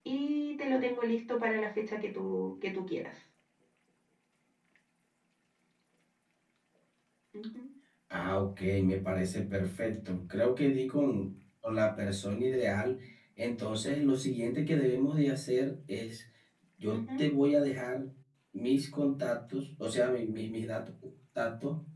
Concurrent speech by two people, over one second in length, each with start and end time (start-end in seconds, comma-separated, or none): none